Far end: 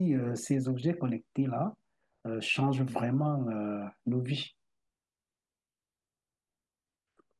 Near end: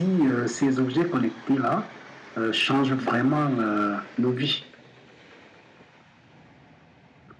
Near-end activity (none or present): none